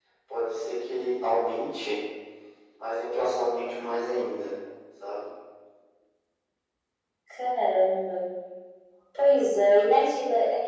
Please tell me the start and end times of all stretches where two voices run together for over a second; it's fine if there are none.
none

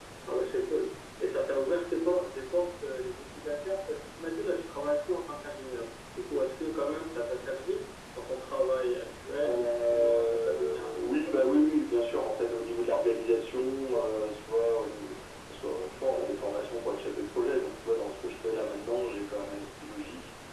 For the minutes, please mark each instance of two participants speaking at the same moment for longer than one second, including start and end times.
9.4-11.8

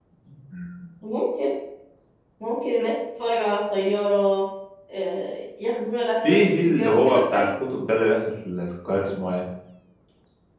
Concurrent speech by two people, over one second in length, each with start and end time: 6.2-7.5

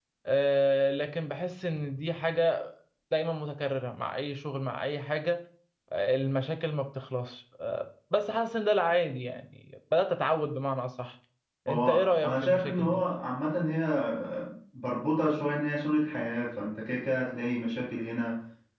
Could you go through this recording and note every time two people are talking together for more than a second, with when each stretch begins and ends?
11.7-13.0

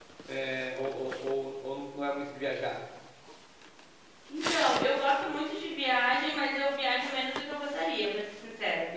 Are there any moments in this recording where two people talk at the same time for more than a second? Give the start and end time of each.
none

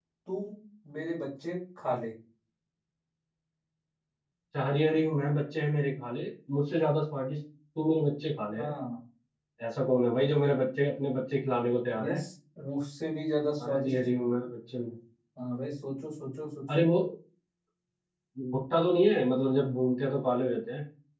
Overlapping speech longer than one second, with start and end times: none

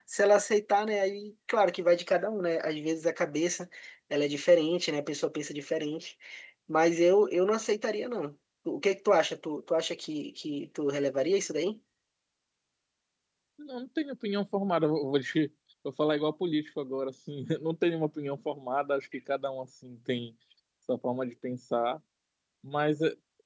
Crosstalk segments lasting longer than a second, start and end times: none

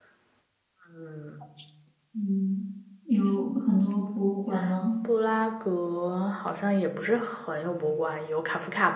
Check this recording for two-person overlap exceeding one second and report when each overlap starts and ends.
none

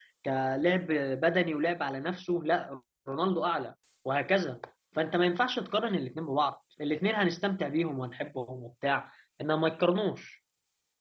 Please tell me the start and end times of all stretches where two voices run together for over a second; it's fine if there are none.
none

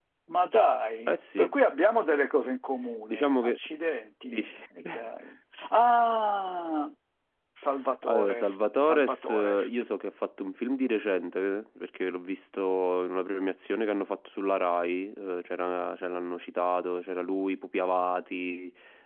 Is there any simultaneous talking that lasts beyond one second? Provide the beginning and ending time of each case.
8.0-9.7

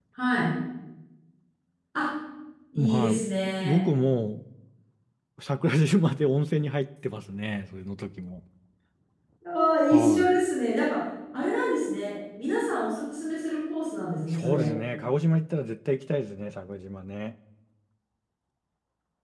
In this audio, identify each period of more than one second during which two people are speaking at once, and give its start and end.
none

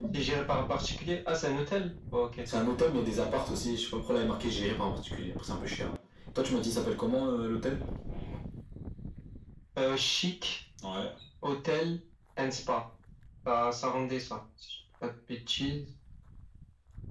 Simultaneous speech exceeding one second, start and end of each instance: none

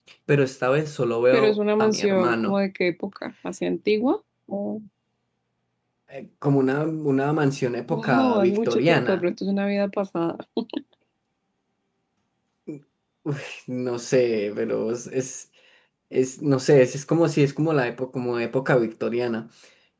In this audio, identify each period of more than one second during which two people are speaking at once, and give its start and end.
1.3-2.6, 7.9-9.2

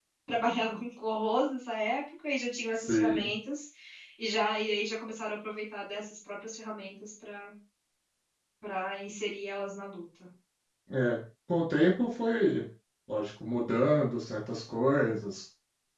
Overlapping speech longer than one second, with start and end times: none

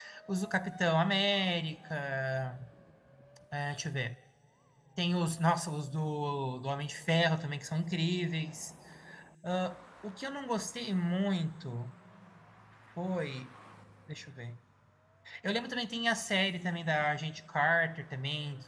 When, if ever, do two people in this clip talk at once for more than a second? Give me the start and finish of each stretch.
none

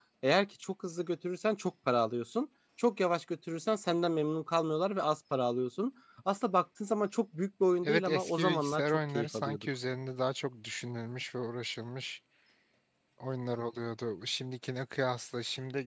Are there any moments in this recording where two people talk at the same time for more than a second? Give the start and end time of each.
7.8-9.7

